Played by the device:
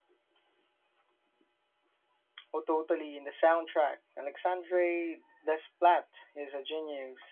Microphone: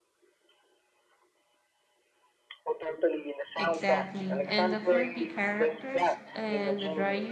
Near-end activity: present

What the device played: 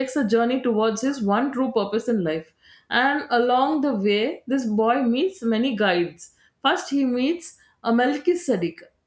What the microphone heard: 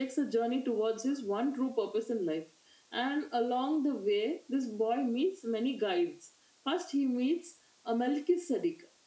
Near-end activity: none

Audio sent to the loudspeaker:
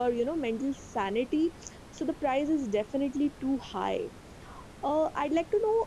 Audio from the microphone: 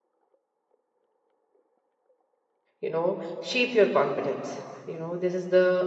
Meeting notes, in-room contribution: present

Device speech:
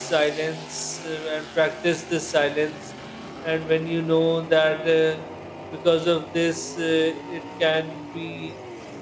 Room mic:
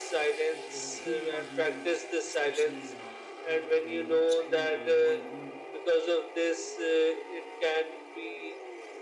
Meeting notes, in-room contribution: present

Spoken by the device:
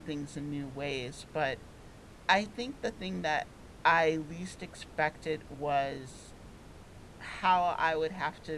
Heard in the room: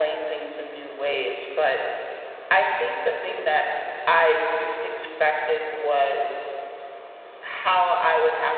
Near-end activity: none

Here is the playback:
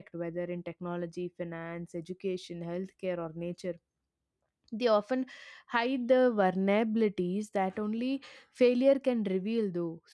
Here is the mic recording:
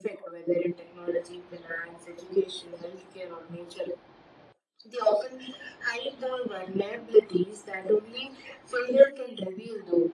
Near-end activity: none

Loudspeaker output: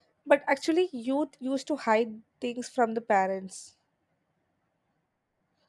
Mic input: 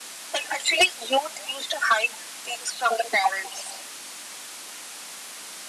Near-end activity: none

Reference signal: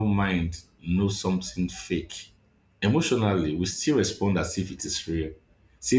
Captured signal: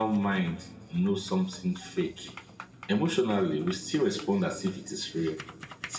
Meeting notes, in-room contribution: none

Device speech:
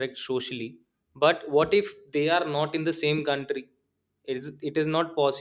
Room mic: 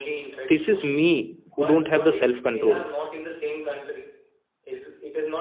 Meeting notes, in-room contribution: present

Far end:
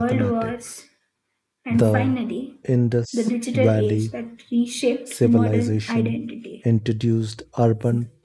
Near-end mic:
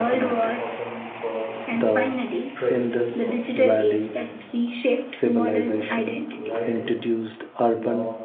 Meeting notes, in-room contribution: present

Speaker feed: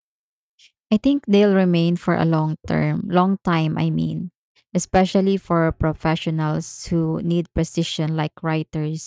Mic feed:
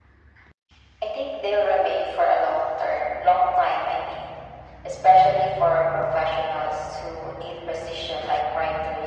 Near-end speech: none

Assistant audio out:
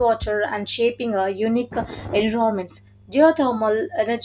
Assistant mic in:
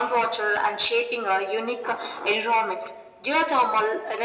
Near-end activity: none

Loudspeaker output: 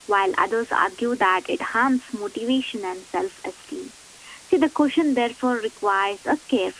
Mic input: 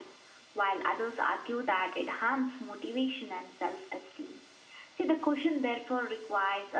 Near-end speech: none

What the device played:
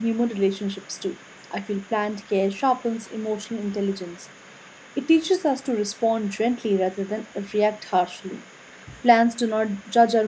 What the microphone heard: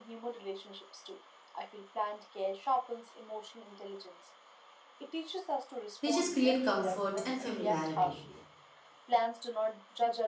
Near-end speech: present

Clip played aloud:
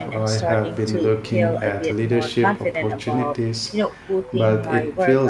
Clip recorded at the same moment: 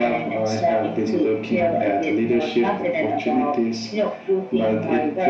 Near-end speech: none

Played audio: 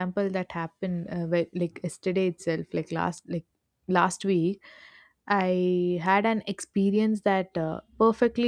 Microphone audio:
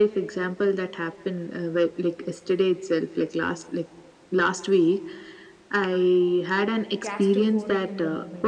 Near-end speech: present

